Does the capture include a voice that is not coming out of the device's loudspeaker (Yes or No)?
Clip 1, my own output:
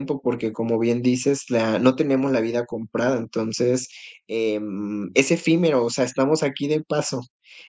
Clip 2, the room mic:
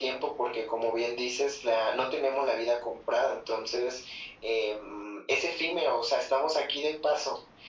No